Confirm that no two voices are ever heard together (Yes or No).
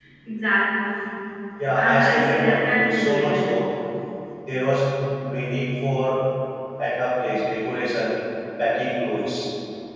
No